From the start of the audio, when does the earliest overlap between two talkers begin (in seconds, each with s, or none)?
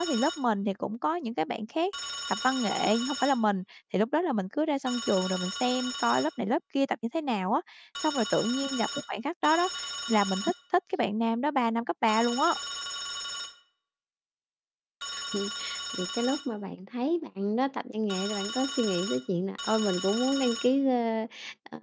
none